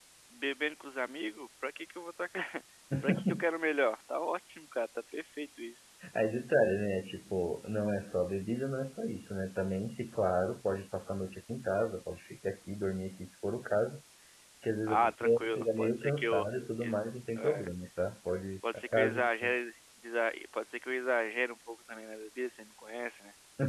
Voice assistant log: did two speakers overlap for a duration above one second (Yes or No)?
Yes